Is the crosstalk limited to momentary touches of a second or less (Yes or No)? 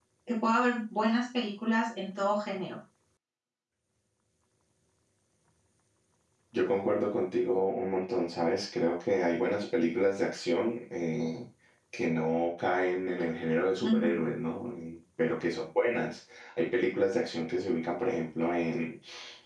Yes